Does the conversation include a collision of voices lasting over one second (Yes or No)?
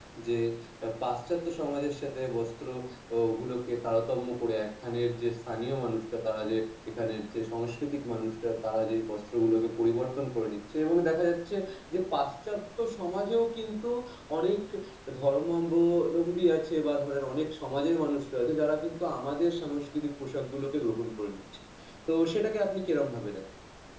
No